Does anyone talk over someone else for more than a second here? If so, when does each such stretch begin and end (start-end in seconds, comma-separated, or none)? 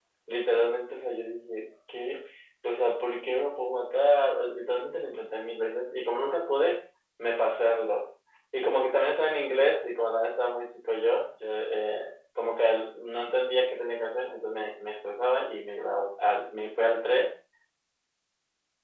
none